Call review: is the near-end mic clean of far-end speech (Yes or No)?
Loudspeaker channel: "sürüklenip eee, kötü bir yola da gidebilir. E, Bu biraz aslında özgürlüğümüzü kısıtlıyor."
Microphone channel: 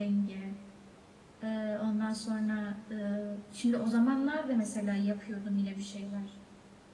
Yes